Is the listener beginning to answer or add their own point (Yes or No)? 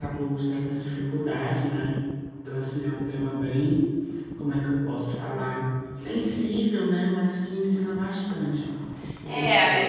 Yes